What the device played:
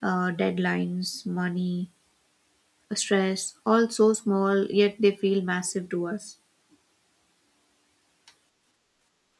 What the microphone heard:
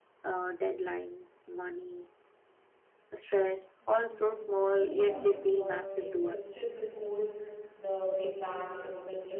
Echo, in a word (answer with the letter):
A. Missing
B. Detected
B